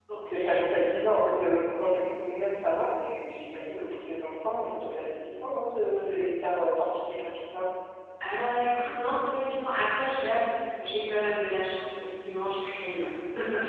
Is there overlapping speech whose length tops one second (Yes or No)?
No